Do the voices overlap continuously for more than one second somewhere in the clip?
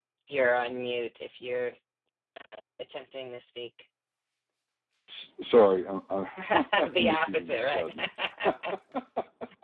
Yes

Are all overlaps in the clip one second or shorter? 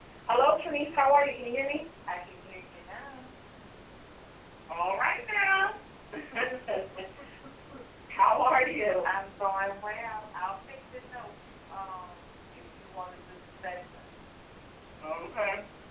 Yes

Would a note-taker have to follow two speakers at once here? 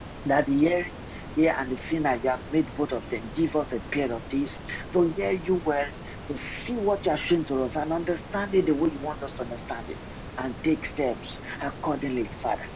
No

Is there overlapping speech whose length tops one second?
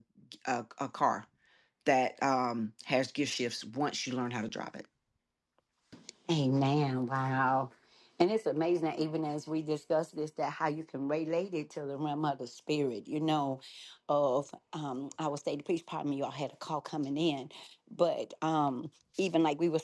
No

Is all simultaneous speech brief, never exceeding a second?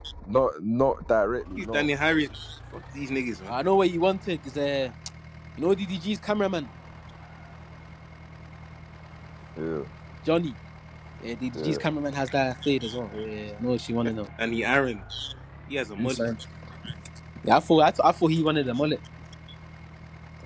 Yes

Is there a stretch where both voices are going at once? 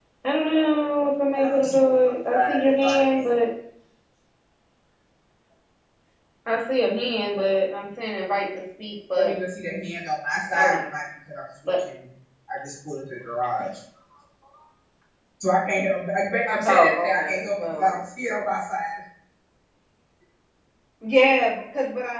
Yes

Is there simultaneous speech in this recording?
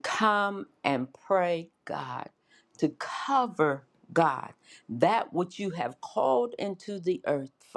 No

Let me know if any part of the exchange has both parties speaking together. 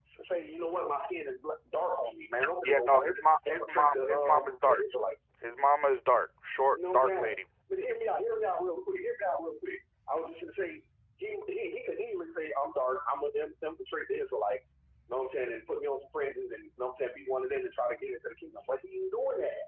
Yes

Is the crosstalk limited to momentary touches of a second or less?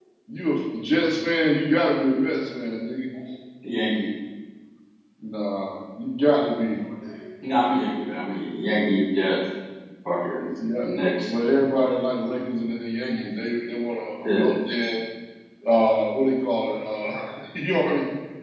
Yes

